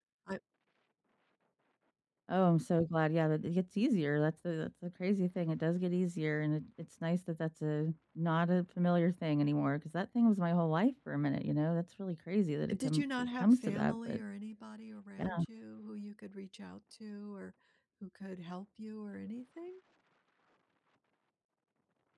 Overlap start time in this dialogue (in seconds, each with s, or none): 12.7 s